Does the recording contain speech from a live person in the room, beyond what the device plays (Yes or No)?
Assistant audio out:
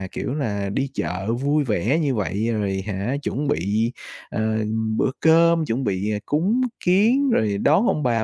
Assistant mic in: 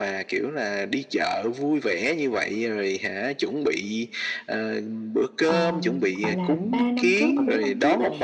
Yes